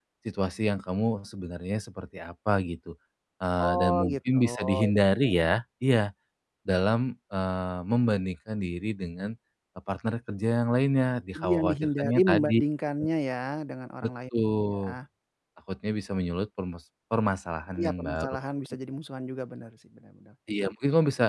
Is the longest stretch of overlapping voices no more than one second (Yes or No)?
No